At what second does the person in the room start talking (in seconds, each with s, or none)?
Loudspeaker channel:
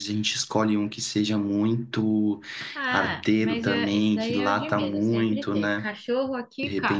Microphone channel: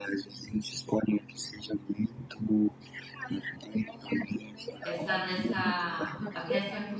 4.8 s